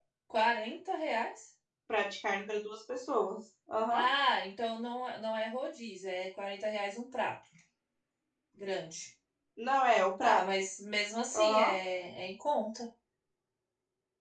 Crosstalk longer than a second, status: none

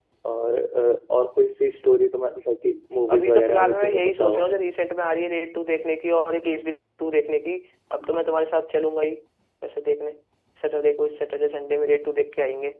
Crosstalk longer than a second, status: present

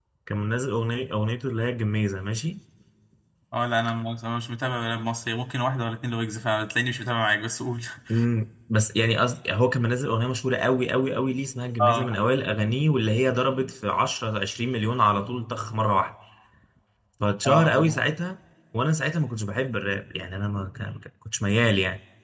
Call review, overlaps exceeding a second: none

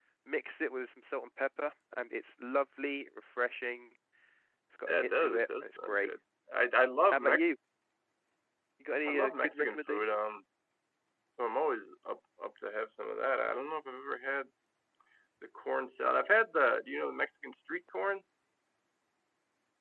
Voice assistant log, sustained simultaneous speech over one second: present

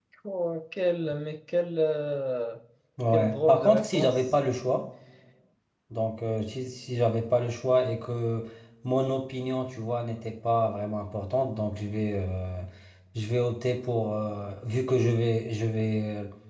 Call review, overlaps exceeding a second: present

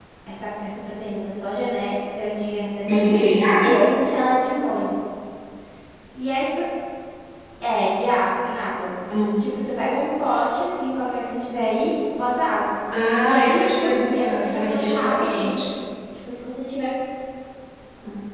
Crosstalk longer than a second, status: present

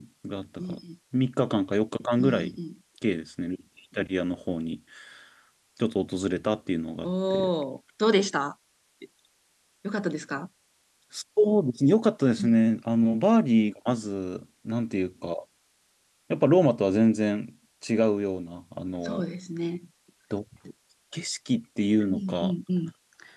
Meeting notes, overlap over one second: none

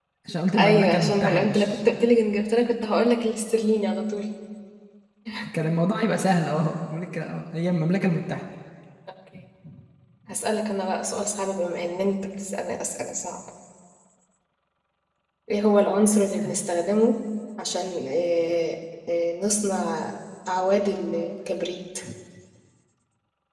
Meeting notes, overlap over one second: present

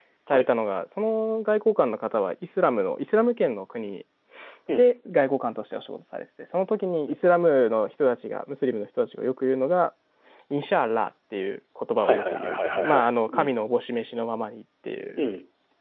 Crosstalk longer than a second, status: present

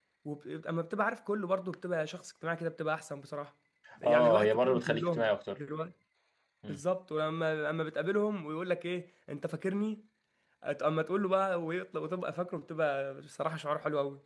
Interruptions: present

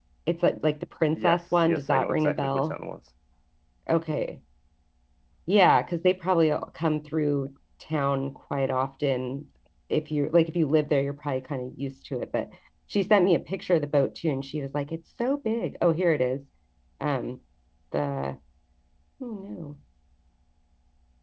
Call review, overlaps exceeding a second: present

